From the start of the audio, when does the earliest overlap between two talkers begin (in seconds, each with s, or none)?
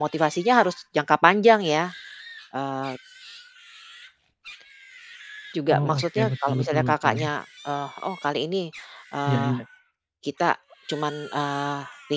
5.7 s